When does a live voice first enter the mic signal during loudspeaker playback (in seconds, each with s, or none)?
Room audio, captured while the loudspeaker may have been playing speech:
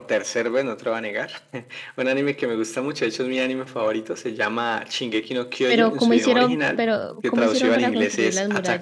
5.7 s